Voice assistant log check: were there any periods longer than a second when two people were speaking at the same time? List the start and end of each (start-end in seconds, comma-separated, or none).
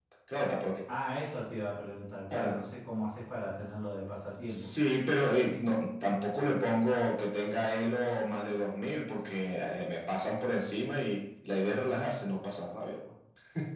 none